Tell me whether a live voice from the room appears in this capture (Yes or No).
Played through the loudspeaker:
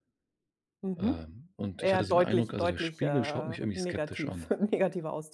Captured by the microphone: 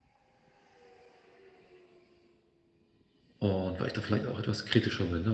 Yes